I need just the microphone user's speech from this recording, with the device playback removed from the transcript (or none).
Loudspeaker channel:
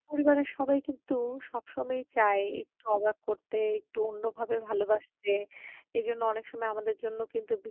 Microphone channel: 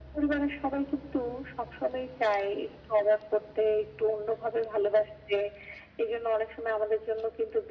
none